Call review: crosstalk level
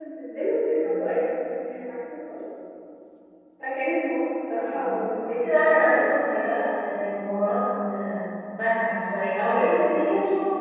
present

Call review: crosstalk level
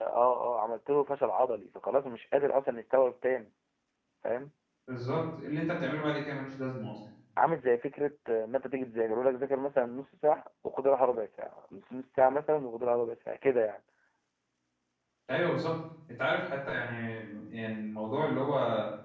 none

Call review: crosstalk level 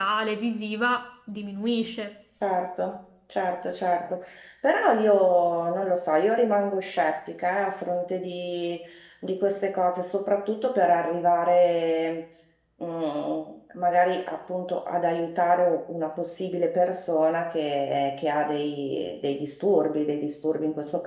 none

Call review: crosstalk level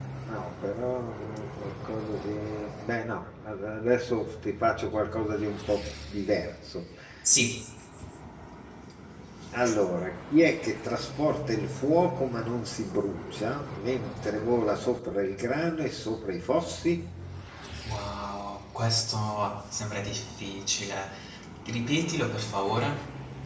none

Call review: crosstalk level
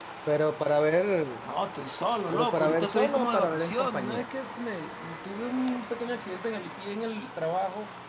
present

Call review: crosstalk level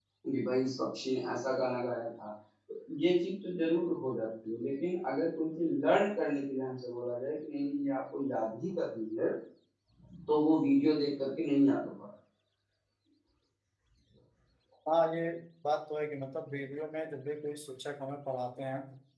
none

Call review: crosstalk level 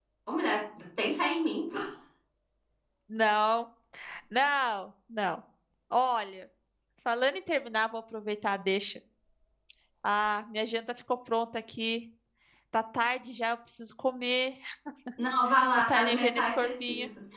present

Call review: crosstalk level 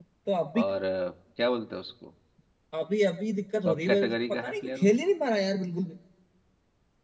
present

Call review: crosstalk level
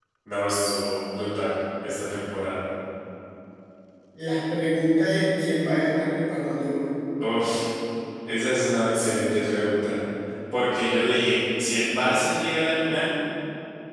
none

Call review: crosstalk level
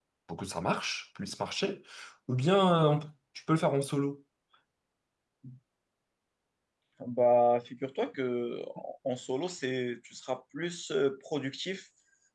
none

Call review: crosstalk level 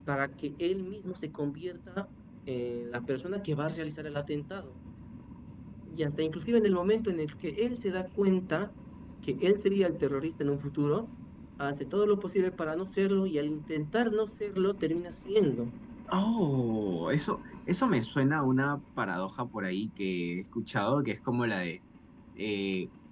none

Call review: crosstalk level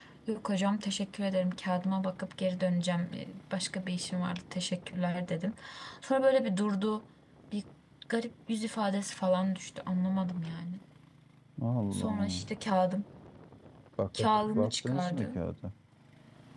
present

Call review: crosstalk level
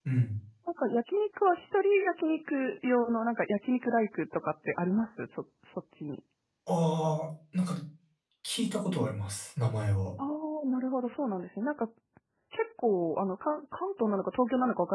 none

